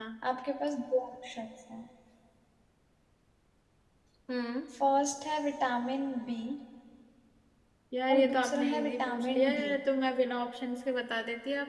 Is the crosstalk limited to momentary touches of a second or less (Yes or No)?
No